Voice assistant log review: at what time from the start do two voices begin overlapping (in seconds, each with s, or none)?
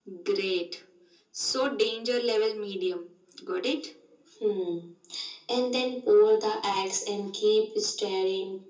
none